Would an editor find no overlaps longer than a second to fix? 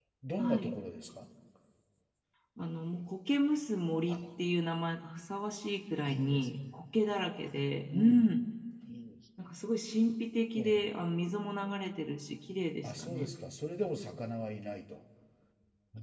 Yes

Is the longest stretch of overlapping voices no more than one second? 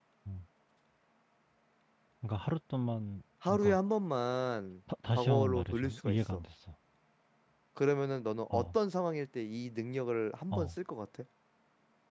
No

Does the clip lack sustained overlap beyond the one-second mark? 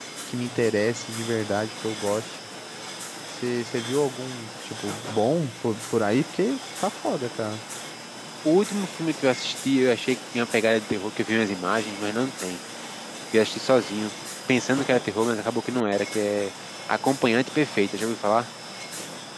Yes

